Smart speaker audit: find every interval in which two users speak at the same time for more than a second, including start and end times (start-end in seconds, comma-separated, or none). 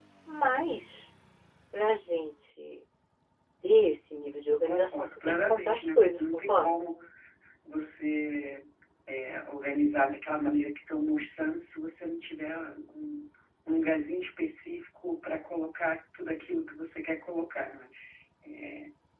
4.5-6.8